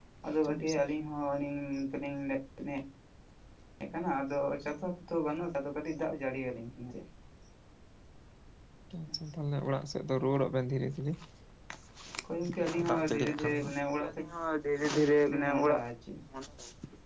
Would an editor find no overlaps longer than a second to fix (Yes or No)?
No